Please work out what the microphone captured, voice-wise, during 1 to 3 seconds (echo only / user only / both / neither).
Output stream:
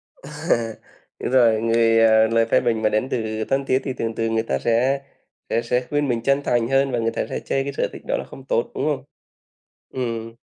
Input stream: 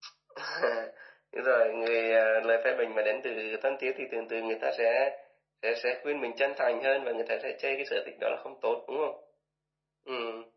echo only